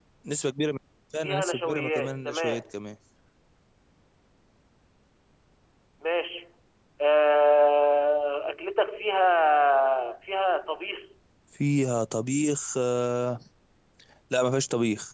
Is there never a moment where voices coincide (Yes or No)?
No